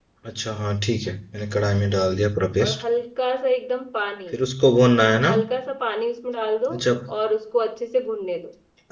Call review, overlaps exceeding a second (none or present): none